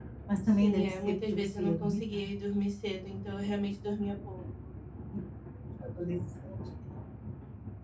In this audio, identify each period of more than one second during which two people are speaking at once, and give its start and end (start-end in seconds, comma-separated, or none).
0.6-2.3